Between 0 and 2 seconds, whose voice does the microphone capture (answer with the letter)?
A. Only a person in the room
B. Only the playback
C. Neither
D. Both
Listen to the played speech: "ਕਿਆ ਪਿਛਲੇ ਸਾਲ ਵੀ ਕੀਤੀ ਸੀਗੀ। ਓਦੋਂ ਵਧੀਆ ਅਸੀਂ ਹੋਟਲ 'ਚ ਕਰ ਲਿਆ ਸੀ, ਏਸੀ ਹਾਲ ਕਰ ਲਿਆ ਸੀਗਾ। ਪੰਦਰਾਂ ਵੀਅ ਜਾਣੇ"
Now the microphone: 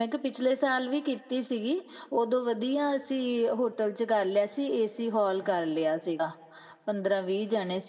B